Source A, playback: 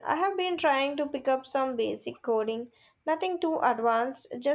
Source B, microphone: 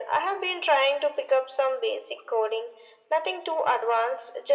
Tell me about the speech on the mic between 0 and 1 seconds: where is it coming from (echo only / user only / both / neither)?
echo only